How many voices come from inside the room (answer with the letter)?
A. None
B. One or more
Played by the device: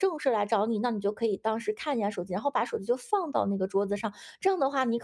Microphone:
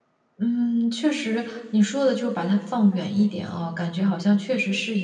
B